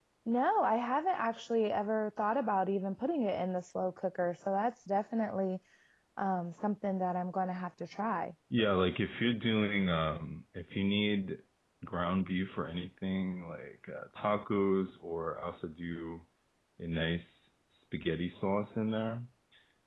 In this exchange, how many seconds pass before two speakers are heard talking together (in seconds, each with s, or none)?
none